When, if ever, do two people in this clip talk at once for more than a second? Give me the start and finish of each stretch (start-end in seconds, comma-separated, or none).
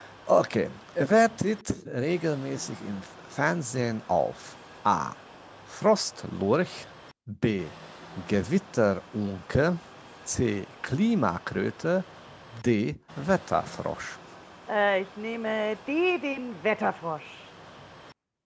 none